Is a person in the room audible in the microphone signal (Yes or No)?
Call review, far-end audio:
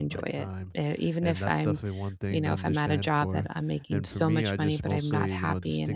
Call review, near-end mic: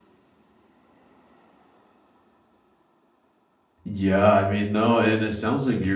Yes